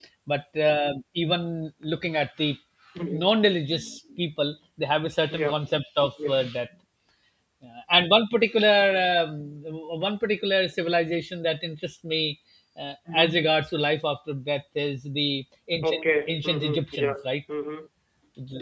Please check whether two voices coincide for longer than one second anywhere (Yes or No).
Yes